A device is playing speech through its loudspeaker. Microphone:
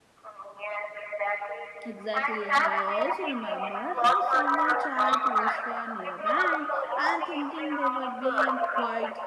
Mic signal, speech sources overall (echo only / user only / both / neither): both